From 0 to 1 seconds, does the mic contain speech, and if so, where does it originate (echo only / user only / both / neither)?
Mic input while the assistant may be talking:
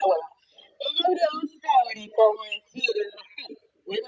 echo only